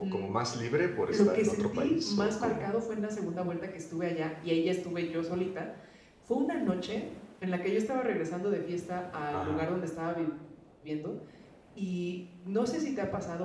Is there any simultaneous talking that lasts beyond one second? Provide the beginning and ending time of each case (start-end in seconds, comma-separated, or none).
1.1-2.7